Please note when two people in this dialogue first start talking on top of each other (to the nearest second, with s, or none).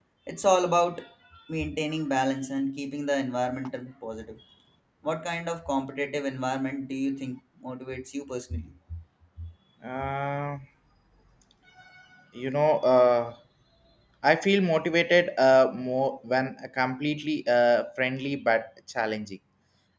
none